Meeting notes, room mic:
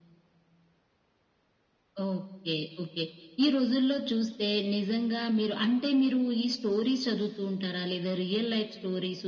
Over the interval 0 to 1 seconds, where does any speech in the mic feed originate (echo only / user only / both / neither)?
neither